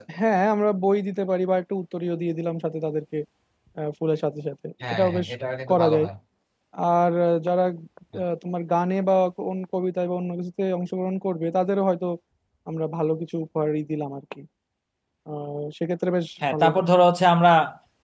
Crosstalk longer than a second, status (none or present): none